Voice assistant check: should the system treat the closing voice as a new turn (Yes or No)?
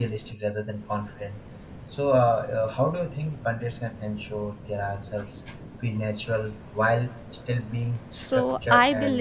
Yes